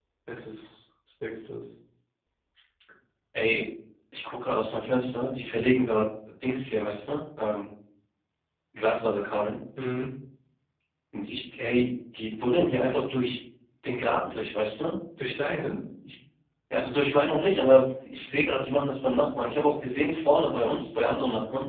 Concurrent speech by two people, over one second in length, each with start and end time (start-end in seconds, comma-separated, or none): none